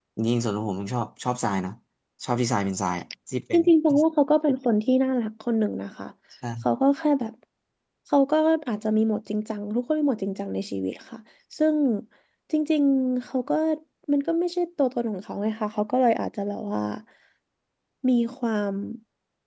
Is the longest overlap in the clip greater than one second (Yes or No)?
No